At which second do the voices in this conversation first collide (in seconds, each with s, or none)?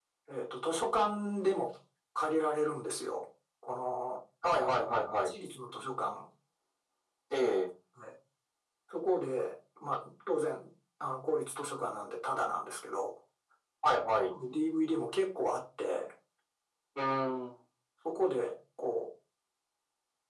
none